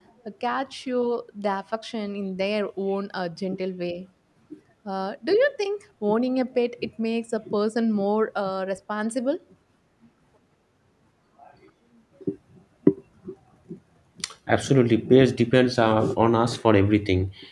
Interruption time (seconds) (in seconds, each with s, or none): none